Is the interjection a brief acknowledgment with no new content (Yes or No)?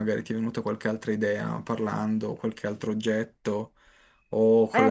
No